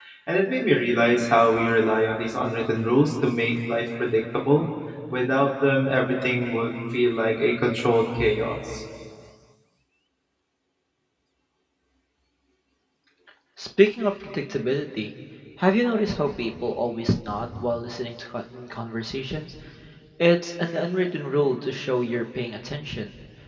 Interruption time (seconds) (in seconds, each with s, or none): none